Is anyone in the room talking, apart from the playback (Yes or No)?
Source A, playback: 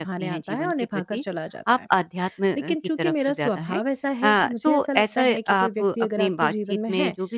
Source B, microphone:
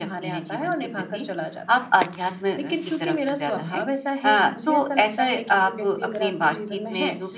No